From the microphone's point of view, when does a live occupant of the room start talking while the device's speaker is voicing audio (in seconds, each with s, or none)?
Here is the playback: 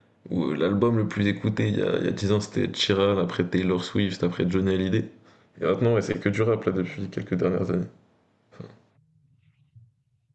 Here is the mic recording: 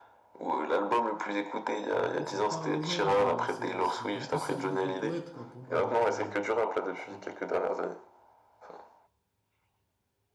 1.9 s